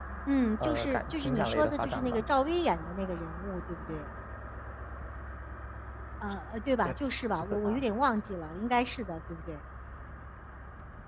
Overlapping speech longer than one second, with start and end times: 0.6-2.2

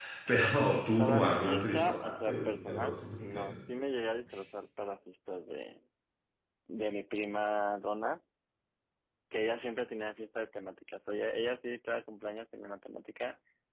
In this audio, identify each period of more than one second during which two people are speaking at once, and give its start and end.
1.0-3.6

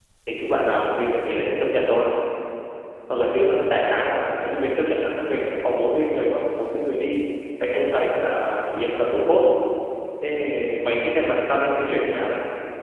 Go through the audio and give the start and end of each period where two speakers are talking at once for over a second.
none

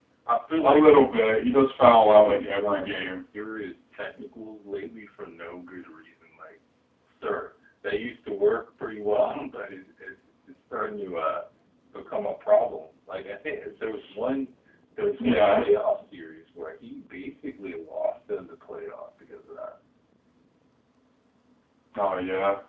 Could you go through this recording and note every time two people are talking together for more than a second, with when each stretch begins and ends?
1.9-3.2

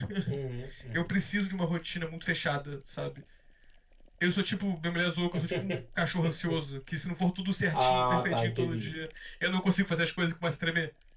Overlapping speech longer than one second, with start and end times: 7.7-8.9

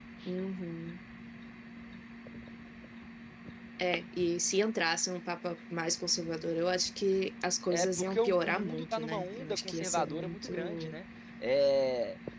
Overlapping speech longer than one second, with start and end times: 7.7-10.9

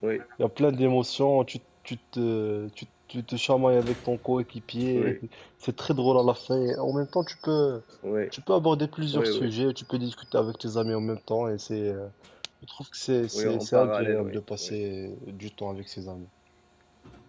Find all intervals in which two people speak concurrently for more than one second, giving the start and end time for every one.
13.3-14.7

